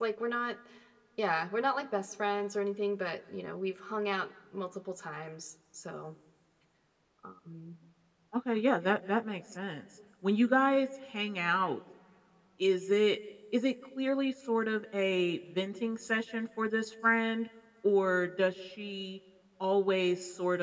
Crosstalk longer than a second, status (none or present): none